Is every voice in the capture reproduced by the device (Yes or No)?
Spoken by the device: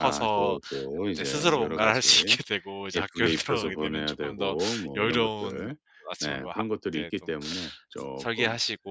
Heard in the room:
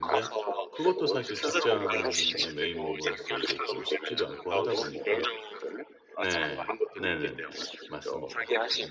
No